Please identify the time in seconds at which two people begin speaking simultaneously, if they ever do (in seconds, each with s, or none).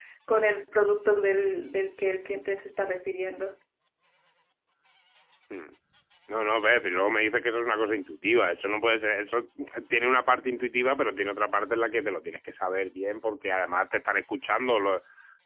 none